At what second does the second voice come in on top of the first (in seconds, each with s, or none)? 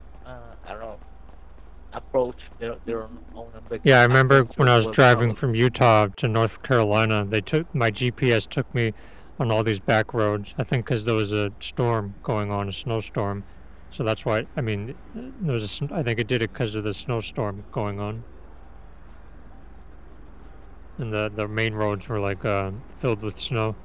4.1 s